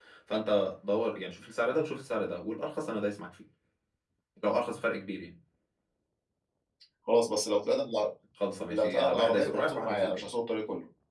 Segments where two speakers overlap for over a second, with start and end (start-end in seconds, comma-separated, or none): 8.7-10.3